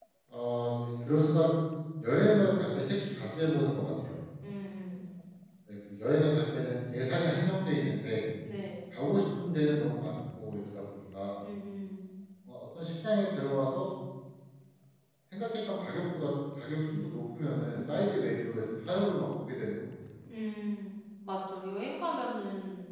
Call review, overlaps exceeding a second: none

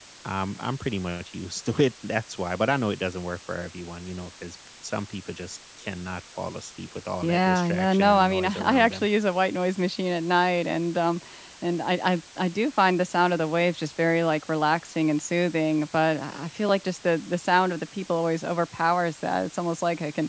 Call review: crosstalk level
present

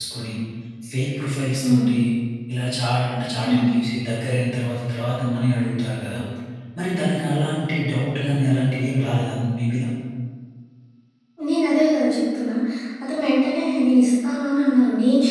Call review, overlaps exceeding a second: none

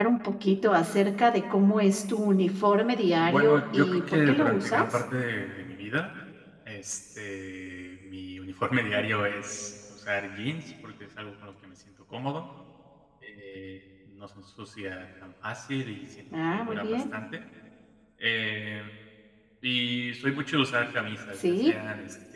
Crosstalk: present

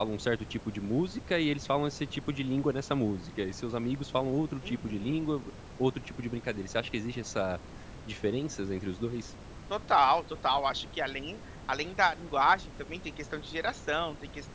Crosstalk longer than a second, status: none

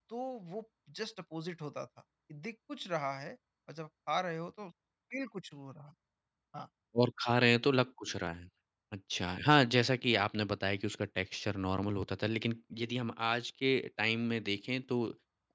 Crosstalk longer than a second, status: none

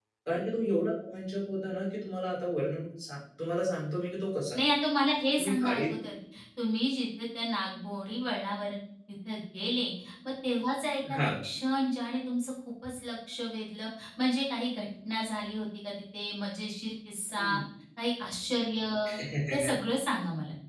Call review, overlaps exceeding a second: none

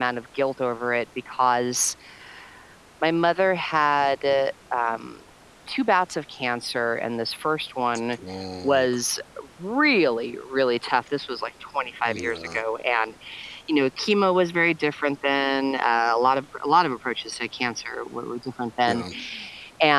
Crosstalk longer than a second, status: none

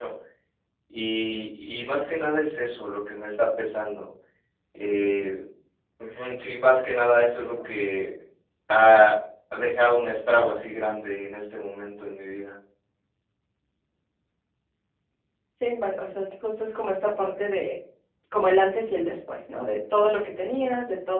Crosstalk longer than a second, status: none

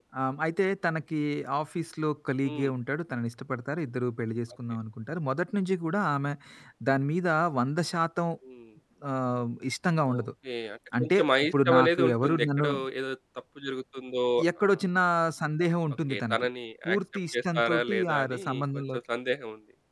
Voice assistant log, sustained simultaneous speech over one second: present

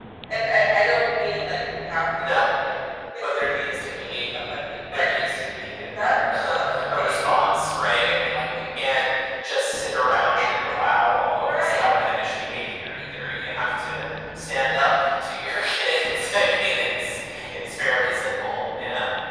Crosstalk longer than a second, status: present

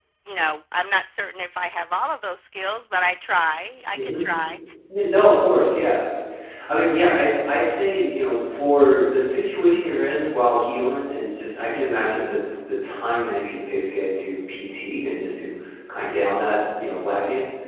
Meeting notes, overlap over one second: none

